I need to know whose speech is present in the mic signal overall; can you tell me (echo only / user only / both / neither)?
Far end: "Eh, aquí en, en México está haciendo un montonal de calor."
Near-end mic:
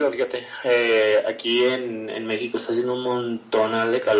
echo only